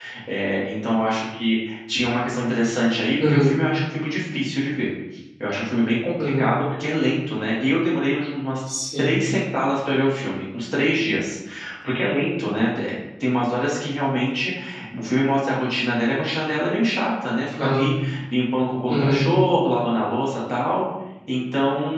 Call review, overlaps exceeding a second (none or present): none